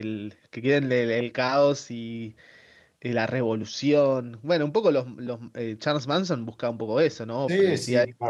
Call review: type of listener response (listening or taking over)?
taking over